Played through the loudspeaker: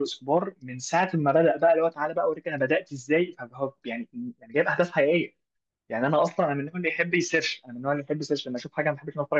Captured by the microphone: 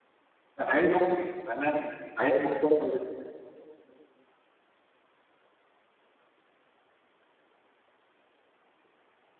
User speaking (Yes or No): Yes